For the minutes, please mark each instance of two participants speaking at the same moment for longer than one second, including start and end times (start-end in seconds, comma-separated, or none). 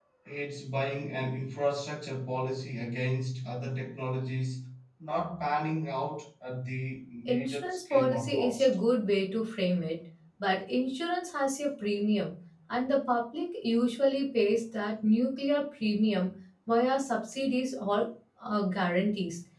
7.3-8.7